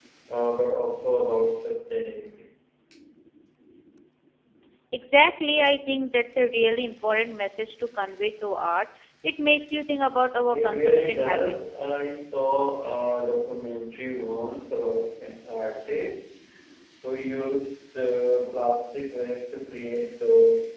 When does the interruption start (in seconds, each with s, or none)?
10.5 s